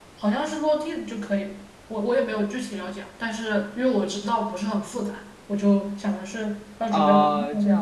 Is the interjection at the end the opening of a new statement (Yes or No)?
Yes